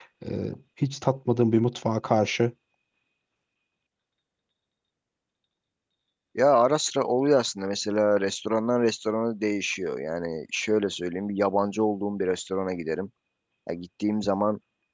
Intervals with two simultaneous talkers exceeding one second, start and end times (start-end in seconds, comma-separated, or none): none